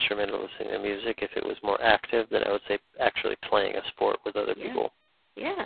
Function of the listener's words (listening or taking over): taking over